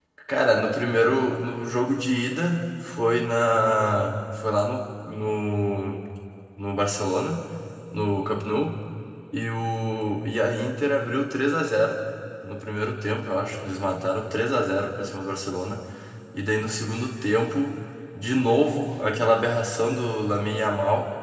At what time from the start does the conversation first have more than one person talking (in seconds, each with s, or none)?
none